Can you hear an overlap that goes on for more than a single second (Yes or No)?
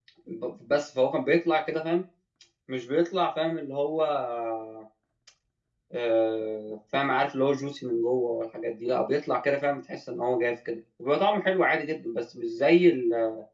No